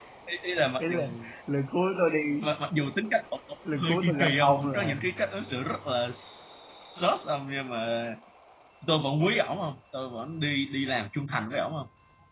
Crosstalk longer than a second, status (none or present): present